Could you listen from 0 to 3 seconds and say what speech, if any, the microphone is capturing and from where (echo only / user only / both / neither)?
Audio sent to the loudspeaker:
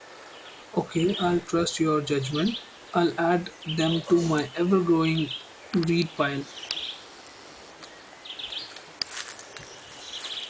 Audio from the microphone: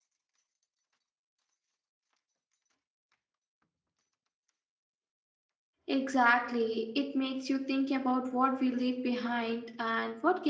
neither